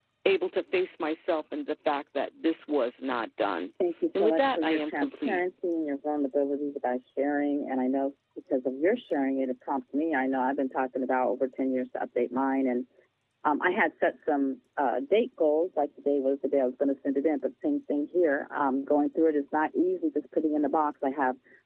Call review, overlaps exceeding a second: present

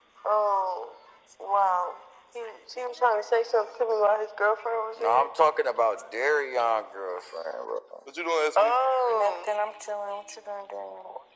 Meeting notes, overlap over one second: none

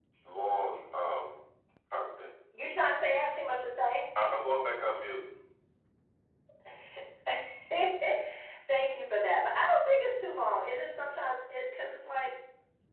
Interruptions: none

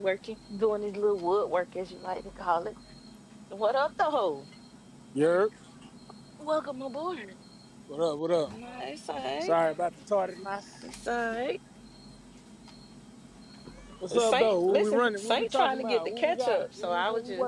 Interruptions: present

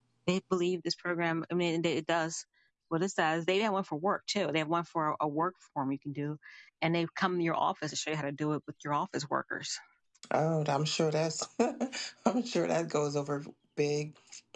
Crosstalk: none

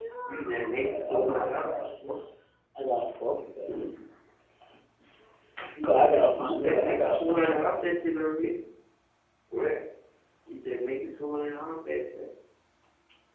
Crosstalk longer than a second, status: present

